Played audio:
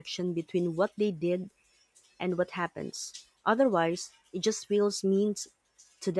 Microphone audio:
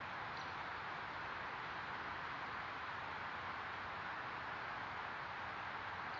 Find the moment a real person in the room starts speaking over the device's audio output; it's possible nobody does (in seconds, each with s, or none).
none